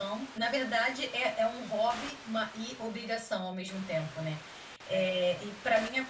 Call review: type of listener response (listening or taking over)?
listening